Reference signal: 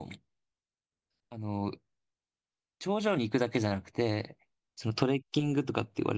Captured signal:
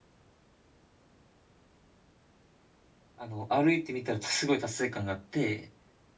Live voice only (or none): あの、歩いてみたらすごい達成感があって、